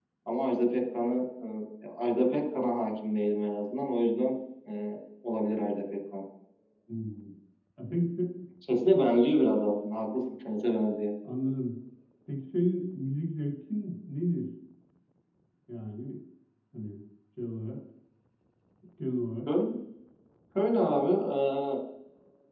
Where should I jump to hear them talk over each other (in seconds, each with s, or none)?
none